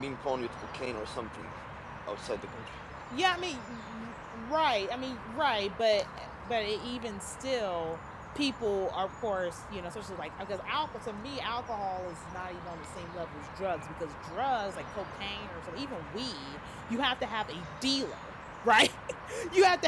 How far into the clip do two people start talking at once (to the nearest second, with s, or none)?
none